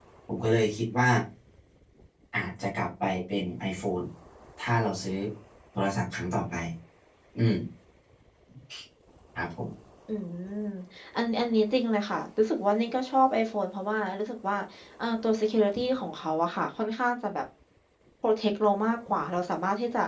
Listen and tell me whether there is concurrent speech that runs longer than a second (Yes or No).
No